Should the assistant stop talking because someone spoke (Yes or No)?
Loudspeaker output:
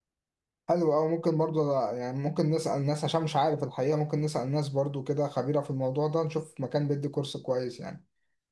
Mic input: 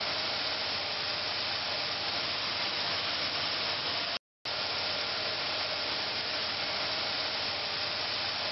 No